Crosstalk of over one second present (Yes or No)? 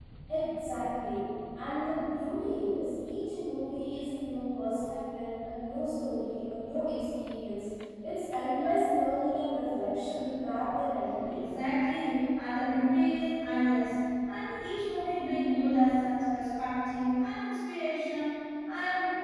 No